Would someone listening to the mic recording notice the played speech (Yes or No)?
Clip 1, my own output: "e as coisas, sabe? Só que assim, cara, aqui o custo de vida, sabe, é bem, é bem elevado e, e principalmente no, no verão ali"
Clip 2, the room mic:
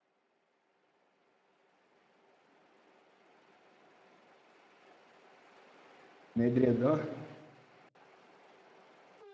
No